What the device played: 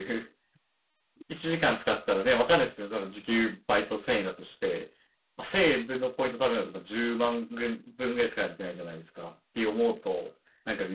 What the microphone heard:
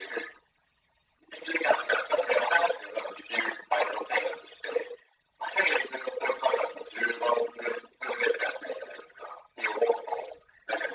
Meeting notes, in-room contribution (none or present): none